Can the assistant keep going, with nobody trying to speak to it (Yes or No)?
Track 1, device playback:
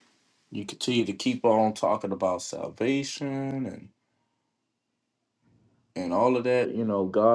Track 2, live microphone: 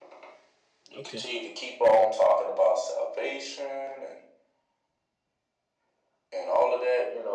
No